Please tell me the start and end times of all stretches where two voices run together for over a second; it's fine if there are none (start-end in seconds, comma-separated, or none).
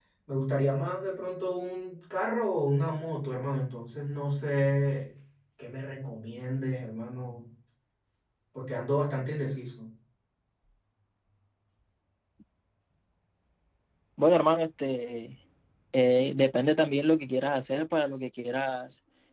none